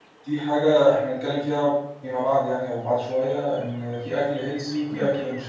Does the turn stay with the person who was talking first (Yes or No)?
Yes